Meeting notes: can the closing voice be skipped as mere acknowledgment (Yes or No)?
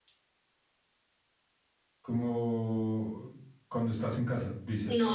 No